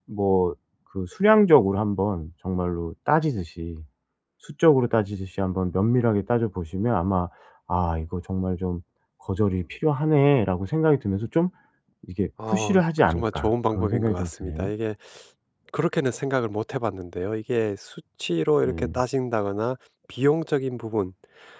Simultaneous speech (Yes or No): Yes